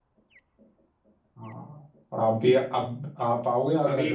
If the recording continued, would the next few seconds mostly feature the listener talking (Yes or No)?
Yes